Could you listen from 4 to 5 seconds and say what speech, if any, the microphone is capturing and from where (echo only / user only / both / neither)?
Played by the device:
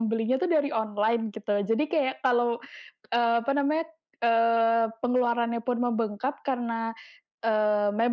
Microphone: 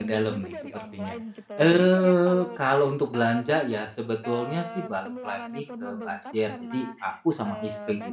both